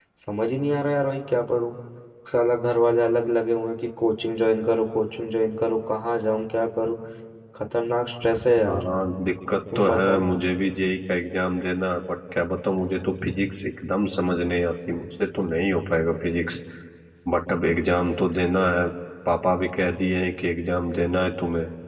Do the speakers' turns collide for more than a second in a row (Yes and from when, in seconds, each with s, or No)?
No